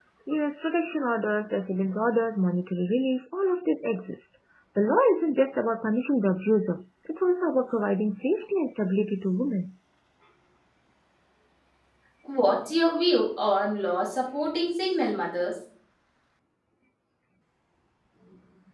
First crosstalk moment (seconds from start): none

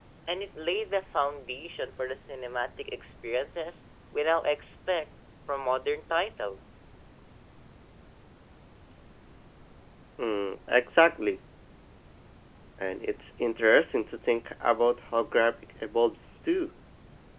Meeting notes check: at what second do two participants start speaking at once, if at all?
none

